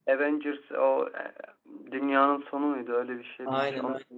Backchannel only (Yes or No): No